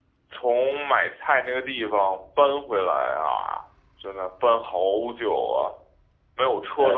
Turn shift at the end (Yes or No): No